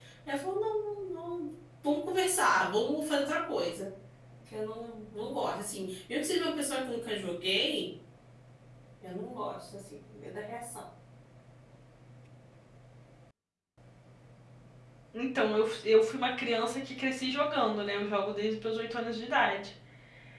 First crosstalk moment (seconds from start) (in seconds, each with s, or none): none